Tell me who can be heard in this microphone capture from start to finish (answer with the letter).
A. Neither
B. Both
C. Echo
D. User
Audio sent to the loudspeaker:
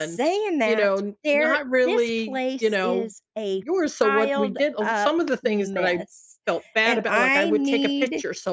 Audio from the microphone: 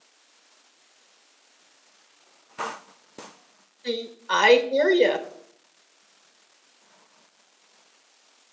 D